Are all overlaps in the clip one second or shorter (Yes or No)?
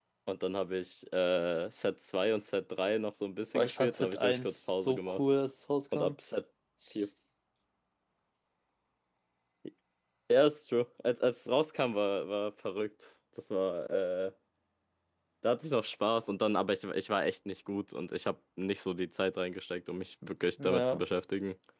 No